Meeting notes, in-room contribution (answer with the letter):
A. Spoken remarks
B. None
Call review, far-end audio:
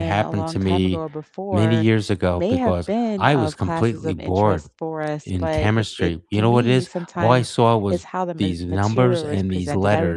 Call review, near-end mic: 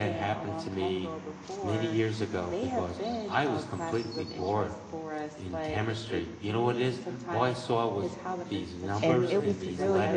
A